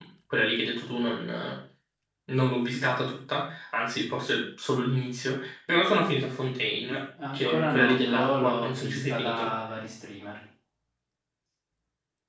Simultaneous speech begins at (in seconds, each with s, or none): 7.2 s